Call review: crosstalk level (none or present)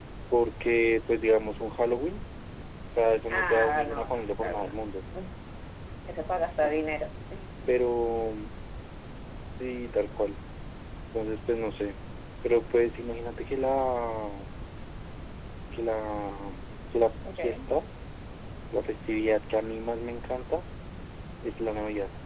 present